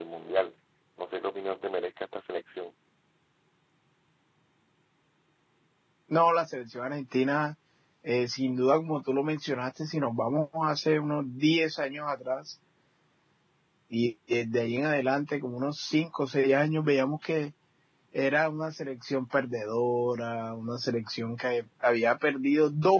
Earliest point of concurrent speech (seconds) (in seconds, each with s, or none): none